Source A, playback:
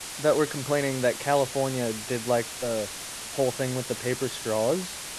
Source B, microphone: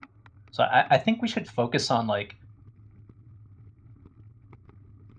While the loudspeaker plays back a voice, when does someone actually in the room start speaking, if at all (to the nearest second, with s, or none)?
1 s